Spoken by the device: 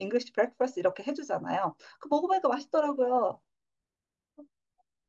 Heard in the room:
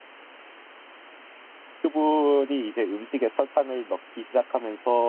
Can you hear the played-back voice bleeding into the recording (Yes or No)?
No